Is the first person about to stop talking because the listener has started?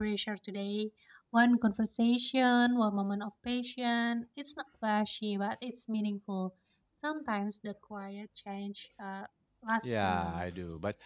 Yes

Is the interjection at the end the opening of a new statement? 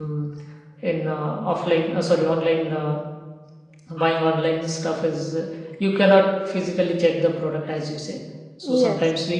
No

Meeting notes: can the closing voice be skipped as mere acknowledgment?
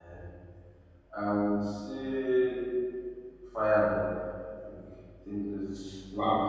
No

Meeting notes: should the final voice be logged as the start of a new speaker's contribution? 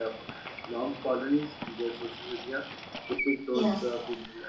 No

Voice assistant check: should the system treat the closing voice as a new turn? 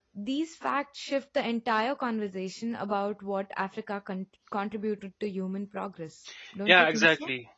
Yes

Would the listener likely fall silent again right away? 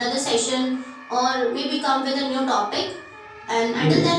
Yes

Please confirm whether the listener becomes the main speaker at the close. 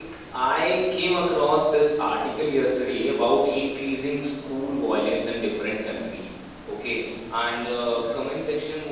No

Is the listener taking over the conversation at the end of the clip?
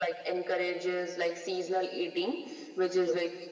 No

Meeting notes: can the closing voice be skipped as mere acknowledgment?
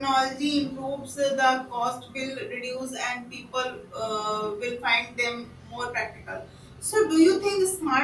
Yes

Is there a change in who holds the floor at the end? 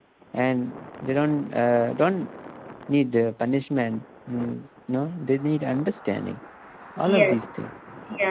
Yes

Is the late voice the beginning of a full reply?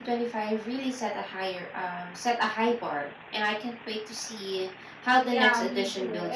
Yes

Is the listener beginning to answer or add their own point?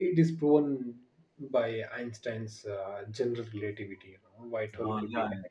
Yes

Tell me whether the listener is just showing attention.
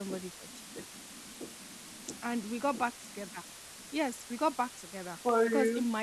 Yes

